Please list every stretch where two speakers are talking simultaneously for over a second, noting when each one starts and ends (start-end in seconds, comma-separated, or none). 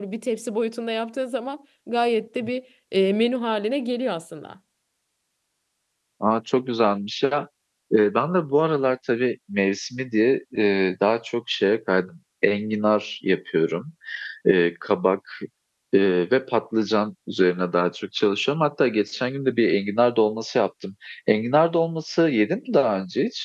none